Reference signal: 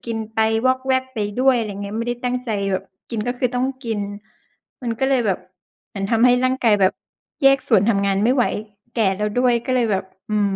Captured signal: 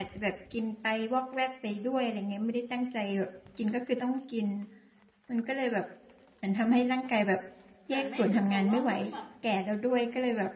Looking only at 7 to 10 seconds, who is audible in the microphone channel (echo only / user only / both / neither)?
both